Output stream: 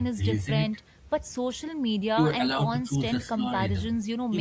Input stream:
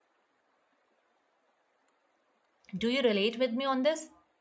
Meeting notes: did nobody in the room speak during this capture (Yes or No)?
No